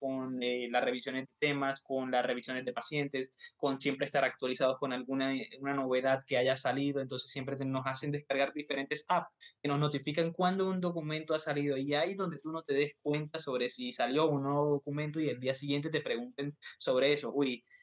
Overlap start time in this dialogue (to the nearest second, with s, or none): none